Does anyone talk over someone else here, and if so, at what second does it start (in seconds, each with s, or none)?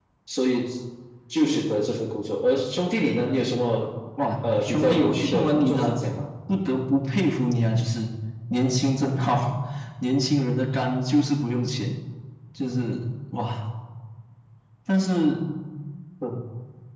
4.4 s